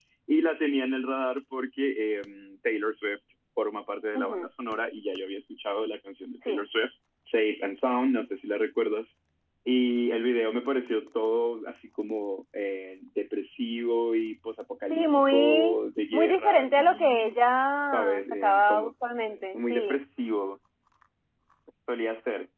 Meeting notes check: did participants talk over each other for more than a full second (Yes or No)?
Yes